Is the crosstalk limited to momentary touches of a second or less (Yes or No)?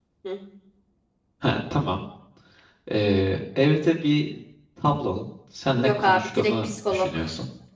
No